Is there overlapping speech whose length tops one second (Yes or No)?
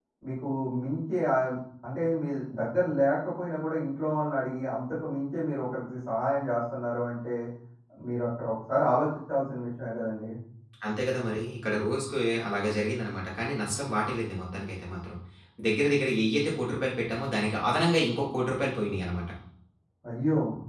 No